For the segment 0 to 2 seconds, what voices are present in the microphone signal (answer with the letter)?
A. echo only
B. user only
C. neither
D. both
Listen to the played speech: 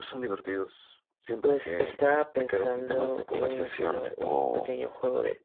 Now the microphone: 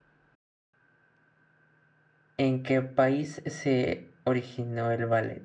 C